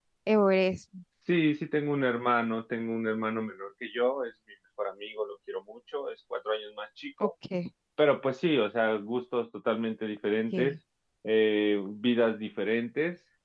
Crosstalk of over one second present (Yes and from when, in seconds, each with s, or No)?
No